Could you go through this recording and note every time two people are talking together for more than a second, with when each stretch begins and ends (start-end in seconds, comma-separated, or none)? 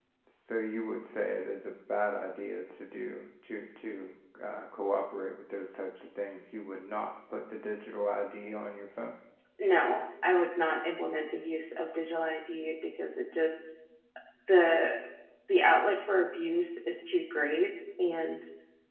none